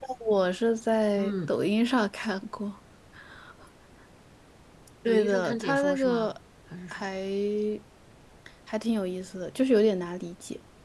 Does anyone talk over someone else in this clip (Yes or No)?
Yes